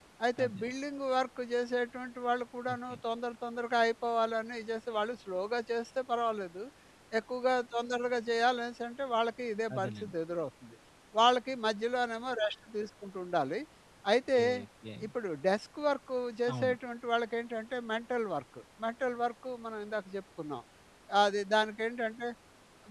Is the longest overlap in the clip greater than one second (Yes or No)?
No